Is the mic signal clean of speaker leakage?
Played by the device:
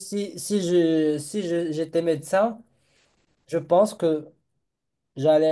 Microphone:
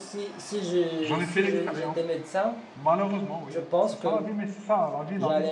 No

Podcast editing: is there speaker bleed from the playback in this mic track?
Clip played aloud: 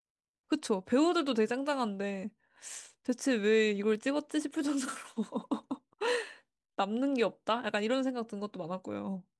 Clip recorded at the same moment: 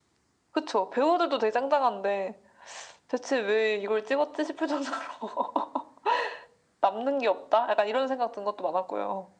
Yes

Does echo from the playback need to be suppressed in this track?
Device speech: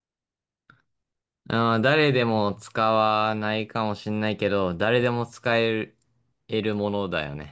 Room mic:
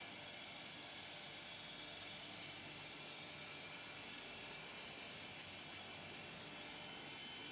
No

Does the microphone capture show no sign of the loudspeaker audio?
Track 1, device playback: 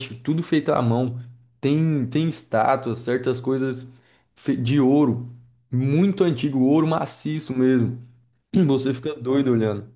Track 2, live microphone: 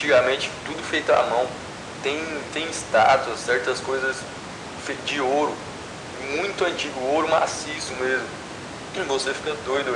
No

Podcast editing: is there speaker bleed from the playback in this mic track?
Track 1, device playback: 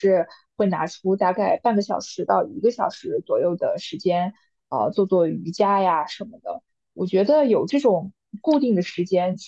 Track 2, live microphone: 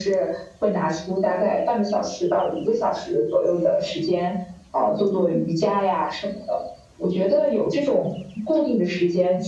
Yes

